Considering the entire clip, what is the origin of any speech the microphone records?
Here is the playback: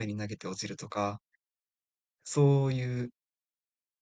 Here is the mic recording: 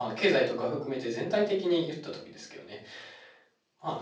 user only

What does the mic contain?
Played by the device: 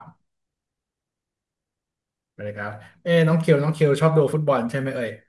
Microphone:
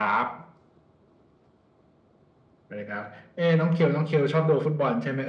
echo only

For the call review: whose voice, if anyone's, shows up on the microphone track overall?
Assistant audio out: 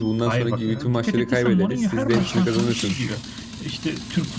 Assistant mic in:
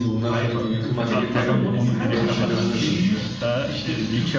both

